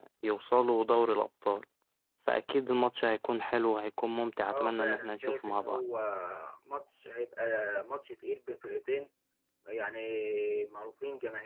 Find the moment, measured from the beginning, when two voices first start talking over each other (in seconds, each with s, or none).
4.5 s